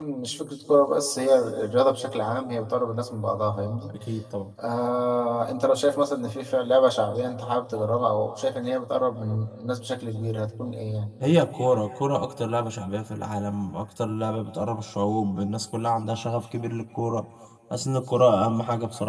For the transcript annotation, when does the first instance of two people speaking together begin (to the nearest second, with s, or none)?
none